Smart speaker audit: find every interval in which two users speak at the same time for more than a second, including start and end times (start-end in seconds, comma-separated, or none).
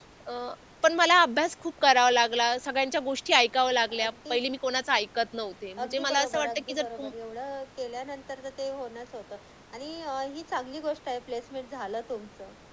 5.8-7.1